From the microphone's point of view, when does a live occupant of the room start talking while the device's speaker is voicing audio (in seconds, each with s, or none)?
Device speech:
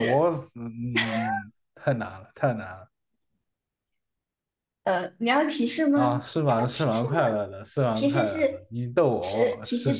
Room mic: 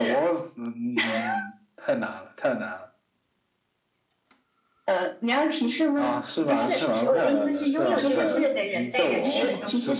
6.4 s